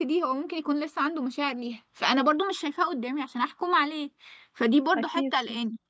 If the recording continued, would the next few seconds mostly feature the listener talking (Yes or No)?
No